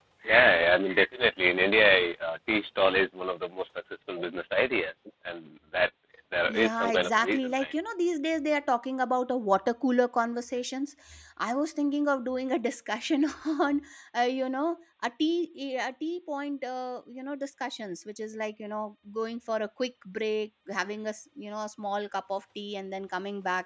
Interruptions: present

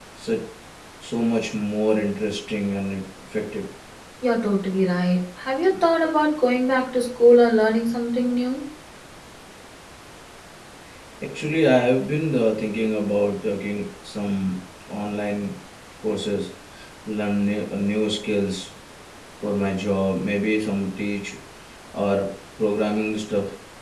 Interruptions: none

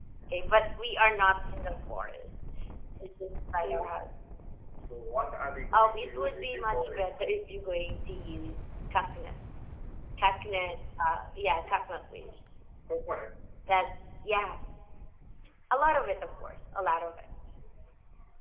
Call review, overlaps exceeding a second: present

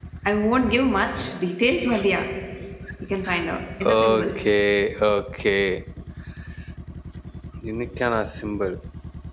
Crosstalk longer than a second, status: none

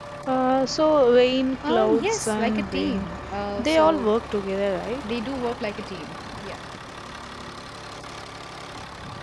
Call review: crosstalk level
present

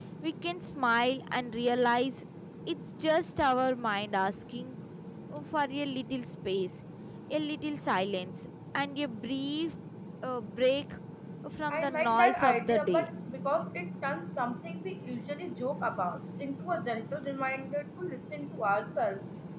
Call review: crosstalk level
present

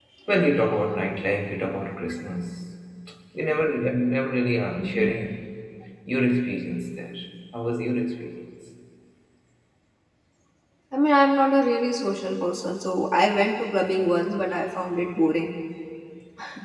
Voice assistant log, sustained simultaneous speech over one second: none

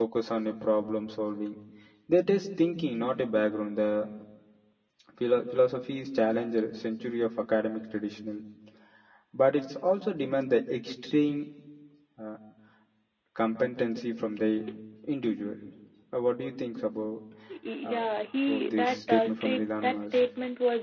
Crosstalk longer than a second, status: present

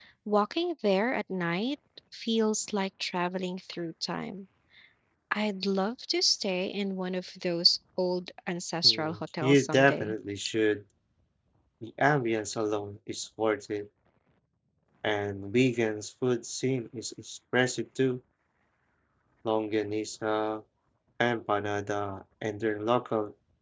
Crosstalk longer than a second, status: present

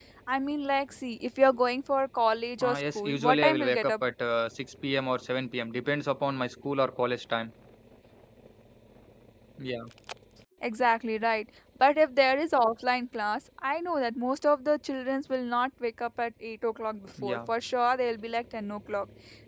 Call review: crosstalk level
present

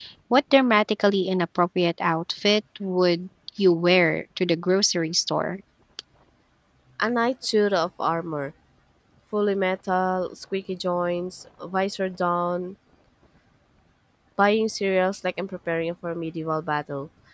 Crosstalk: none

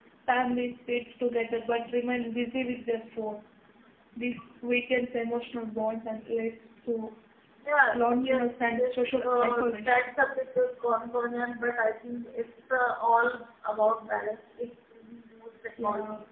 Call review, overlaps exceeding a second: present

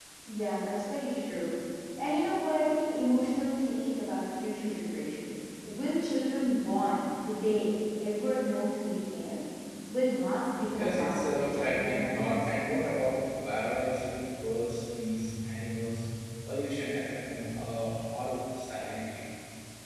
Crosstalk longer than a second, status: present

